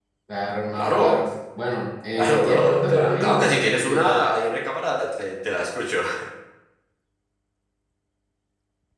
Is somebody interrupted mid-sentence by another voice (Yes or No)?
Yes